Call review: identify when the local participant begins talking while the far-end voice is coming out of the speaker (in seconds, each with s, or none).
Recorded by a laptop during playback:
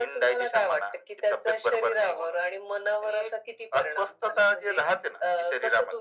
none